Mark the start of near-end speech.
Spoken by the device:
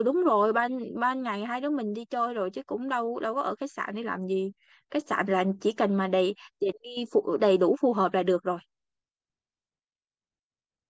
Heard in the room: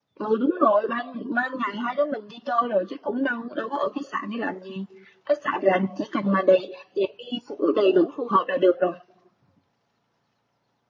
none

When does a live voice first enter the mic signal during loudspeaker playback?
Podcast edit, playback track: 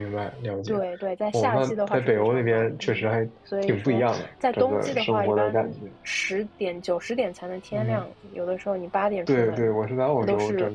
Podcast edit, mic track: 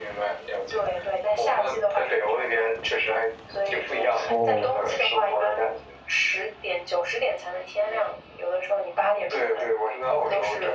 4.2 s

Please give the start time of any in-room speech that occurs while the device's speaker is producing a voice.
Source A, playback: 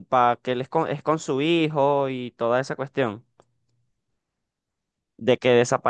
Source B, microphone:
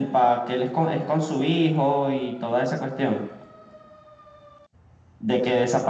none

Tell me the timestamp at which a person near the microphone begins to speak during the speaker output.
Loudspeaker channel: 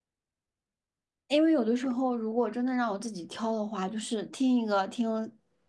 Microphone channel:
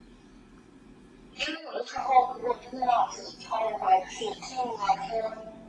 none

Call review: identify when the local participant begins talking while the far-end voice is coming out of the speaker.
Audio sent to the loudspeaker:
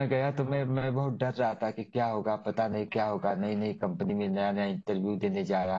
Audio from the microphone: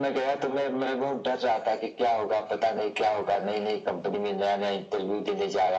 none

